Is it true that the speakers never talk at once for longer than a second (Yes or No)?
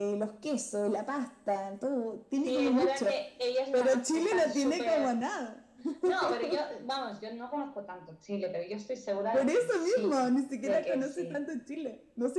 No